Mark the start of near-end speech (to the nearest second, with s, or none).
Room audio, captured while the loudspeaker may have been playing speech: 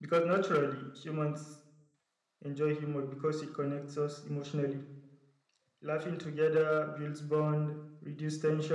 none